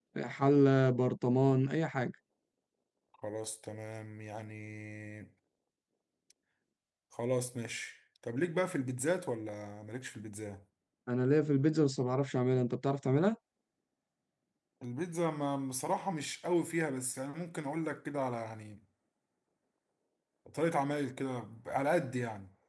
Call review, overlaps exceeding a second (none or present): none